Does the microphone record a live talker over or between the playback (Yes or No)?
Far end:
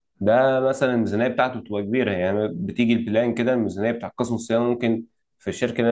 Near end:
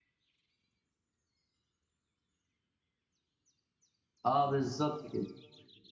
Yes